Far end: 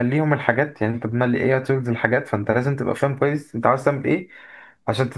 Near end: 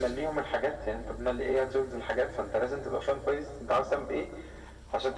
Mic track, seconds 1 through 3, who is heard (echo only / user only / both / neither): echo only